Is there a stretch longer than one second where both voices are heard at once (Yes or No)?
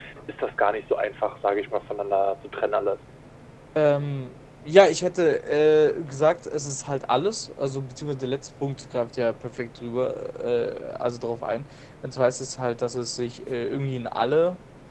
No